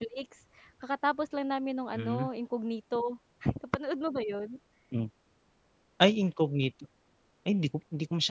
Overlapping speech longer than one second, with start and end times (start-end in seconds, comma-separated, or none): none